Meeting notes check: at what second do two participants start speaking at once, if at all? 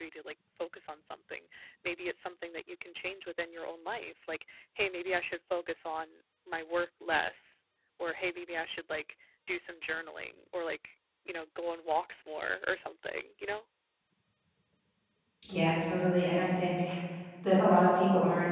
none

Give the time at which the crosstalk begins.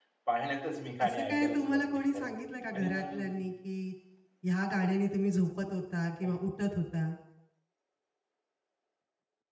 1.0 s

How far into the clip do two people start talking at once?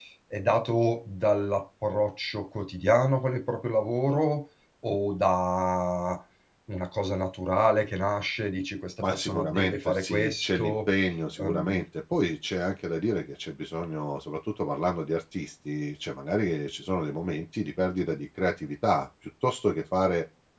9.1 s

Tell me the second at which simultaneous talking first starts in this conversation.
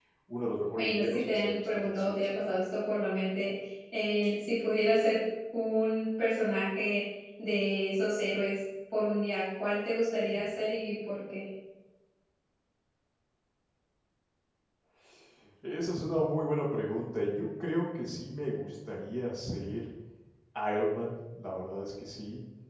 0.8 s

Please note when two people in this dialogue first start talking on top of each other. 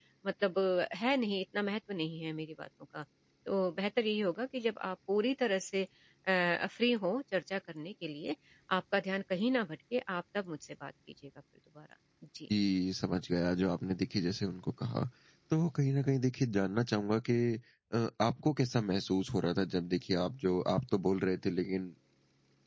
none

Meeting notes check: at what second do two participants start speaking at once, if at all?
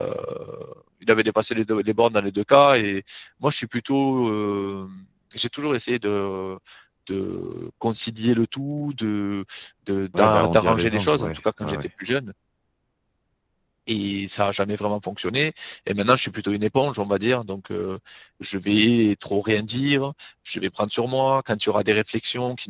10.2 s

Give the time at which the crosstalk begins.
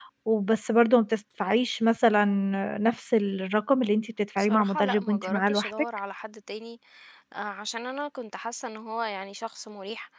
4.4 s

